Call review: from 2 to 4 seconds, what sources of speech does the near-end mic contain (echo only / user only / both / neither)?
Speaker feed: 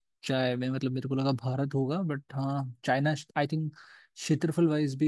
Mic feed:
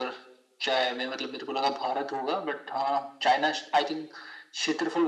echo only